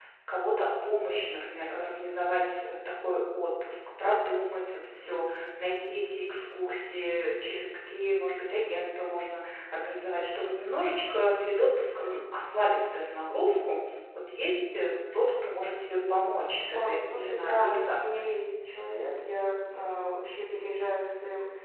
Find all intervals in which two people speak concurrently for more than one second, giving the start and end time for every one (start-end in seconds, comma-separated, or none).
16.7-18.4